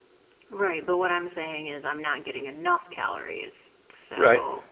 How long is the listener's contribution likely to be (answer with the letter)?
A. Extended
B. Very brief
A